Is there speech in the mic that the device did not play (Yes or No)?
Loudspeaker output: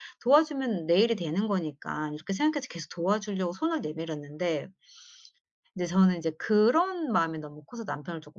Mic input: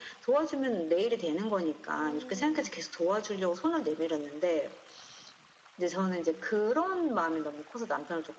Yes